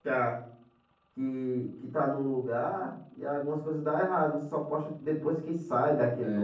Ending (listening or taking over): taking over